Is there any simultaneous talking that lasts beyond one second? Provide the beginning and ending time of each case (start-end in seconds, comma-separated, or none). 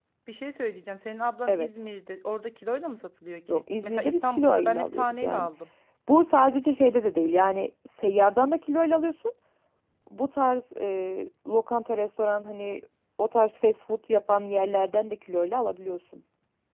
3.5-5.5